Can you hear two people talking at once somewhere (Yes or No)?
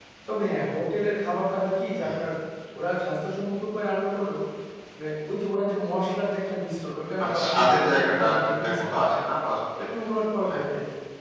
Yes